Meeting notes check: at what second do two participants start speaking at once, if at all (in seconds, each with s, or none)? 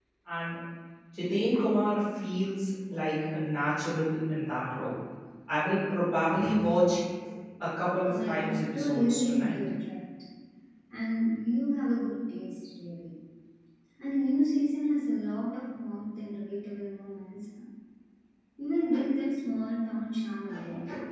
8.1 s